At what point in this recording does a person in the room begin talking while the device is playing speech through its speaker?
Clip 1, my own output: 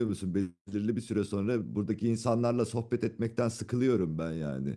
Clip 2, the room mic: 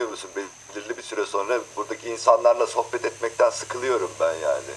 none

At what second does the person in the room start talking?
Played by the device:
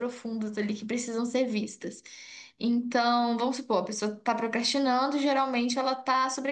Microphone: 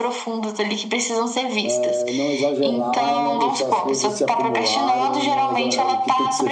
2 s

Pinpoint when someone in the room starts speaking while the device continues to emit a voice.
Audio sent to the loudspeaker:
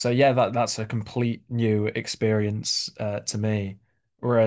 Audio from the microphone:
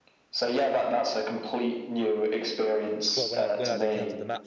3 s

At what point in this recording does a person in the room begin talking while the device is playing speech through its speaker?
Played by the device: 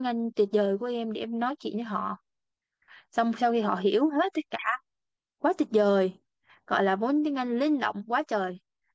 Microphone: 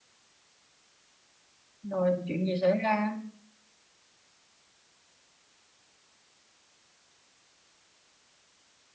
2 s

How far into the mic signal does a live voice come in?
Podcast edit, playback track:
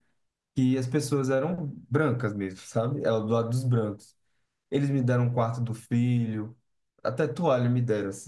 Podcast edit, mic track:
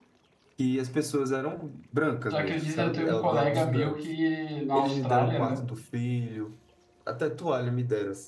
2 s

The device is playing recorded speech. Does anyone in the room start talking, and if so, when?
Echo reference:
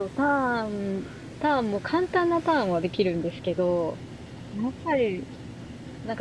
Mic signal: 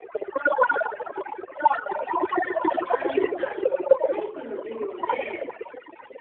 3 s

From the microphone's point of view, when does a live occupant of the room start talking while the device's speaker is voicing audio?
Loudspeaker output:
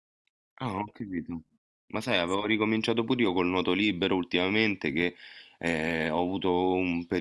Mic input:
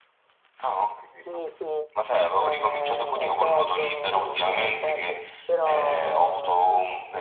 1 s

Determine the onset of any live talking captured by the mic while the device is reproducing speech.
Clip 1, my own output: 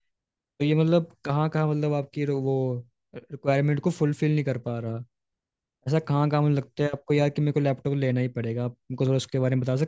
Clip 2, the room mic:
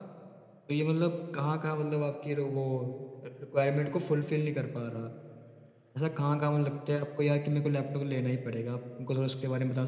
none

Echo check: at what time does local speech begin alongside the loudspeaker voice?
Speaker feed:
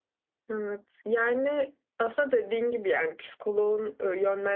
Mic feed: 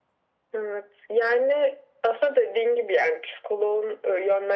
none

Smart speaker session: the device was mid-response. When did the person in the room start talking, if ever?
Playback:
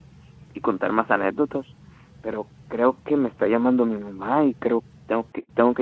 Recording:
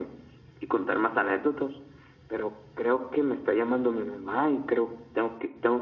none

